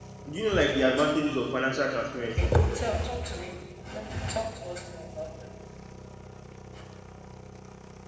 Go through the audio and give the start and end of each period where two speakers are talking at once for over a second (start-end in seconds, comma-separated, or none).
none